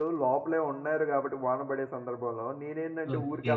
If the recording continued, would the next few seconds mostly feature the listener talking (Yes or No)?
No